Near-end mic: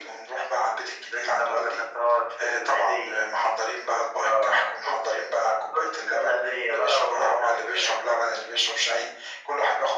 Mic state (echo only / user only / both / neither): echo only